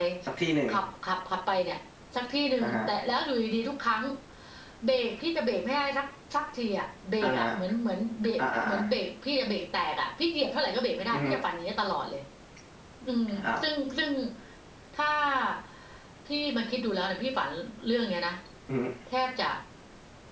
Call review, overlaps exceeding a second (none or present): none